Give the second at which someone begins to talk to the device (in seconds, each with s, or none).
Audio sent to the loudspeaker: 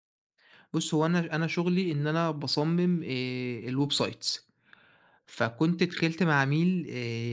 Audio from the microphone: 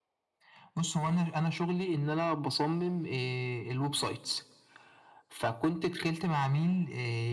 none